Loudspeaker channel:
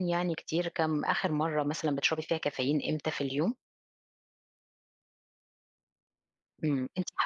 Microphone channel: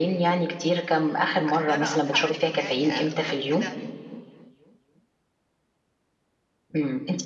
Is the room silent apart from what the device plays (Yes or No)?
No